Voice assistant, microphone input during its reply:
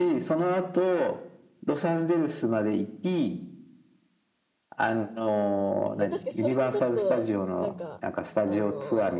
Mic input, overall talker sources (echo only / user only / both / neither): both